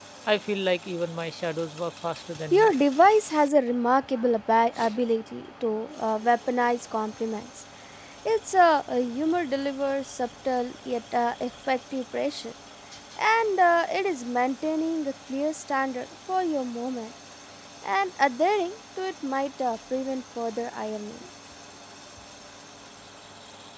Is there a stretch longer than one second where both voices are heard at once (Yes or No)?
No